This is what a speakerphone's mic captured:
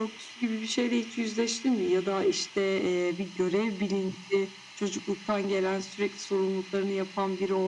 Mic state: echo only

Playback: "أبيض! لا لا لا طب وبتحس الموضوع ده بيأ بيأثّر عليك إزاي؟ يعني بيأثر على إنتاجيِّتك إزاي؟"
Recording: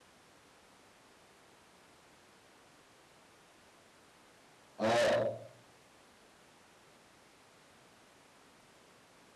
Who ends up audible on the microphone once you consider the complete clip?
user only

